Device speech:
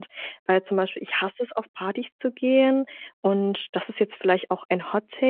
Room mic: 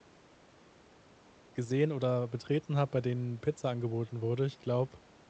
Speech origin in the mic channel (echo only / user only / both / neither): user only